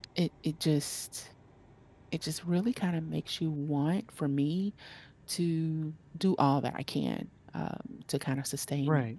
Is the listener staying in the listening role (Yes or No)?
Yes